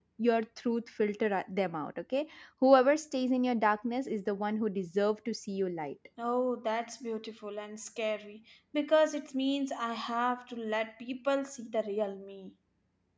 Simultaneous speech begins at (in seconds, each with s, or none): none